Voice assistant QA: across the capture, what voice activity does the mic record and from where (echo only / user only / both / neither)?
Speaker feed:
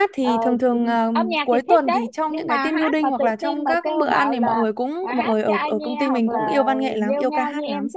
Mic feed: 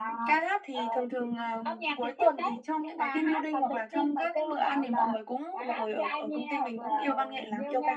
echo only